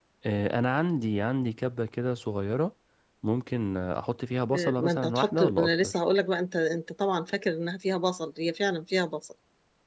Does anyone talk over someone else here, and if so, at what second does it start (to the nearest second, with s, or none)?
5 s